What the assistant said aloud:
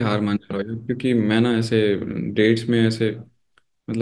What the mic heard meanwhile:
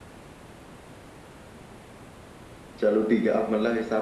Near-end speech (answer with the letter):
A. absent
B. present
B